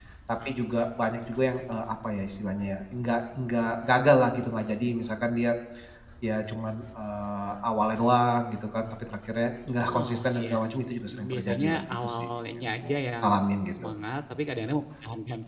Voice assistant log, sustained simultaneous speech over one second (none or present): present